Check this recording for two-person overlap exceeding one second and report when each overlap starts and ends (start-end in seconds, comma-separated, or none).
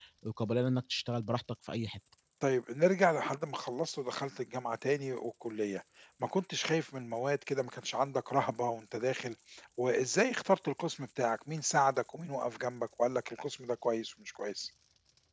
none